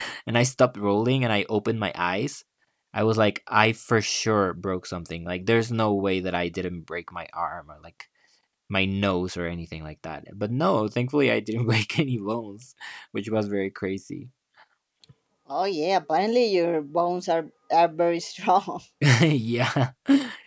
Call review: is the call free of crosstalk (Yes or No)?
Yes